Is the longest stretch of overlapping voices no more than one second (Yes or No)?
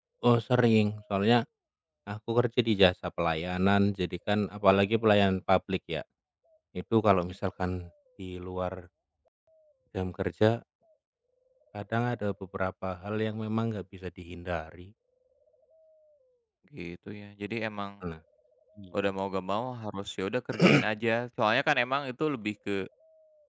Yes